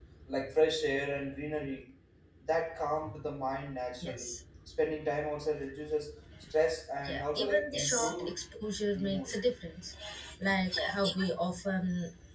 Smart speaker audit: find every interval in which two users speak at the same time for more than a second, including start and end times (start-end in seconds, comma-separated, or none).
7.0-8.4